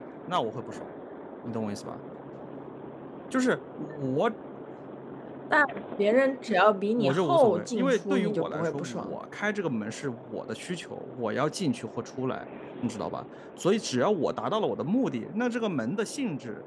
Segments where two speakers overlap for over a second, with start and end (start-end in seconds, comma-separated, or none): 7.0-9.2